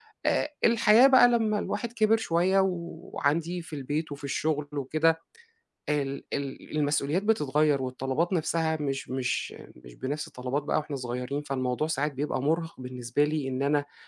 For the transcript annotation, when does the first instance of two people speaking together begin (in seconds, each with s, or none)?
none